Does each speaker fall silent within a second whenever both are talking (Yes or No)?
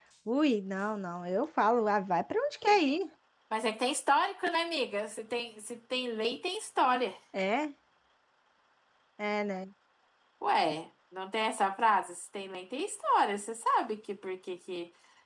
Yes